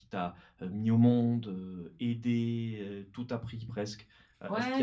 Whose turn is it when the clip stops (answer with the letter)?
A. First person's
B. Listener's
B